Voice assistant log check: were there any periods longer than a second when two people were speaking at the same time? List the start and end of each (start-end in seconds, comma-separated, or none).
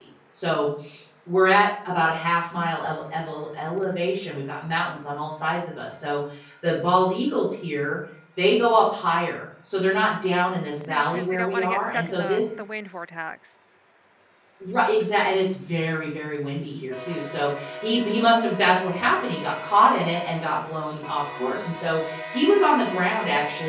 10.9-12.4